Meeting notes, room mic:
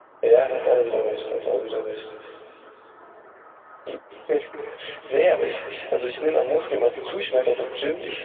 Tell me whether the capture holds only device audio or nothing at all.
Yes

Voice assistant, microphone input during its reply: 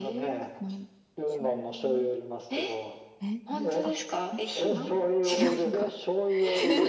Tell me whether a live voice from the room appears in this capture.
Yes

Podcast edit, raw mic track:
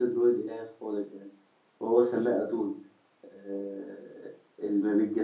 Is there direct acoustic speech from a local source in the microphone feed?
Yes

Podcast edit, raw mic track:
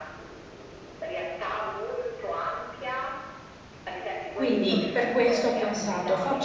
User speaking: Yes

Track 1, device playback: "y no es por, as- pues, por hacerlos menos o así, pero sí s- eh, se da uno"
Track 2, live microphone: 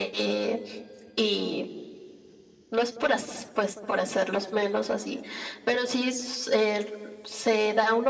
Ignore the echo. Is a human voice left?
No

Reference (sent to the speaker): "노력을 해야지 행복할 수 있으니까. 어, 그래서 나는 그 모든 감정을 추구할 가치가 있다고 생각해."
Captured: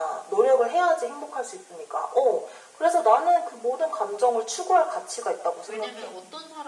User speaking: Yes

